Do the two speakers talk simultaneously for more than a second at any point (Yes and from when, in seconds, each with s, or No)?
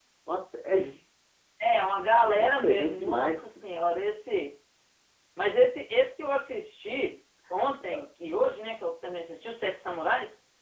Yes, from 2.2 s